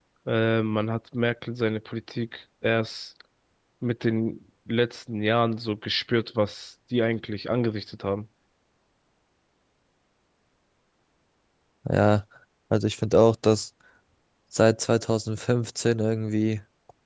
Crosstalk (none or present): none